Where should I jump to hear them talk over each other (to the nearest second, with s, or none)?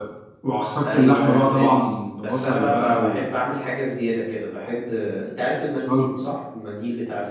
1 s